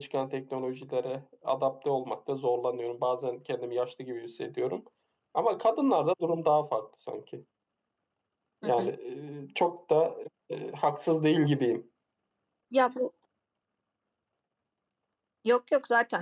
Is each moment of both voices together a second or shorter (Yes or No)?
Yes